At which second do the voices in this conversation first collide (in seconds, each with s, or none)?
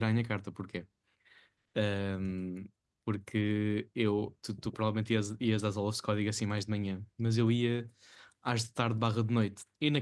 none